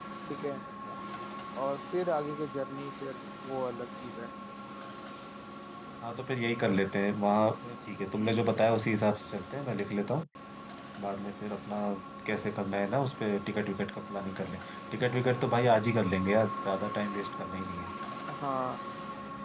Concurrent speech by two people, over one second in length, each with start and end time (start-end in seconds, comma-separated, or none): none